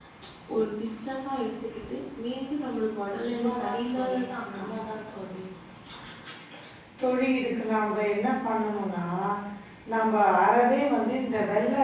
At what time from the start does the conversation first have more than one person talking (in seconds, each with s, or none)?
3.1 s